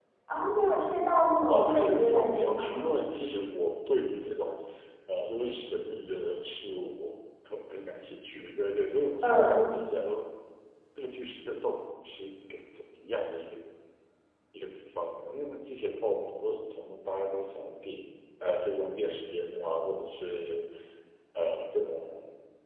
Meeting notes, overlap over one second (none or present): present